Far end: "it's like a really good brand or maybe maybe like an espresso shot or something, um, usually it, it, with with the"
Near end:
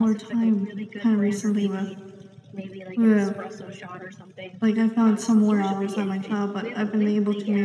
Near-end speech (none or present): present